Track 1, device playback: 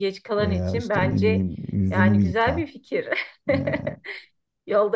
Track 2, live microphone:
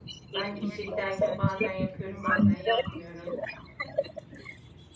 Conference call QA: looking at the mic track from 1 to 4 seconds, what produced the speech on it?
both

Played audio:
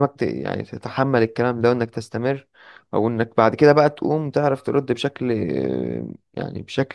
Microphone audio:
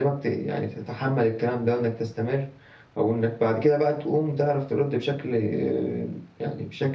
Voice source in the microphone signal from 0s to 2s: echo only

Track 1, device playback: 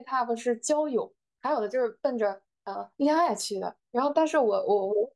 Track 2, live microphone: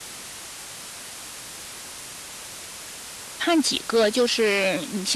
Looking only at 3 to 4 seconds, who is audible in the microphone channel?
user only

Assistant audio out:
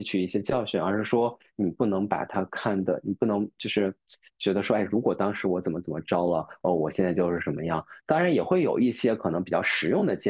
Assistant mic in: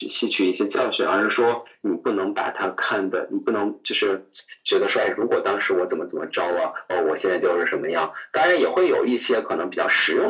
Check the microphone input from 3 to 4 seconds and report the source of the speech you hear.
echo only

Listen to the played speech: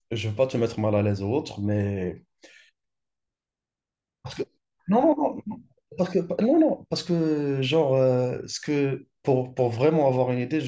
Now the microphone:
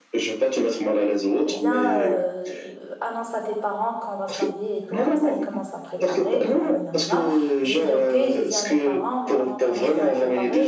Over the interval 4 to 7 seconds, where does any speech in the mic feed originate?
both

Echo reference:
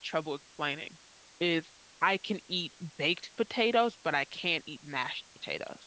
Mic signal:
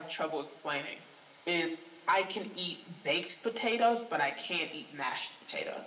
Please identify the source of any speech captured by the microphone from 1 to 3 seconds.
echo only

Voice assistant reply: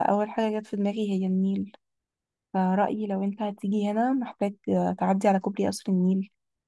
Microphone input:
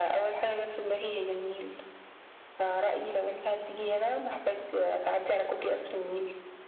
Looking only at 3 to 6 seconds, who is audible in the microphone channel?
echo only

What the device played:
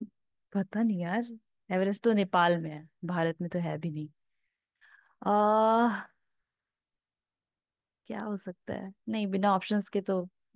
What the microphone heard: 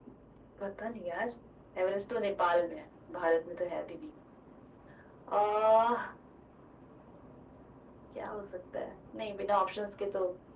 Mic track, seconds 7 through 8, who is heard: neither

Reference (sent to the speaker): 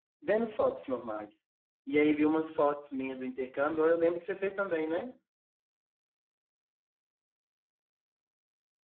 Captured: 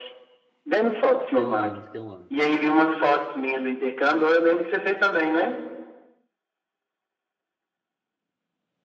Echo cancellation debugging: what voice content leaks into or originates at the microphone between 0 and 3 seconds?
both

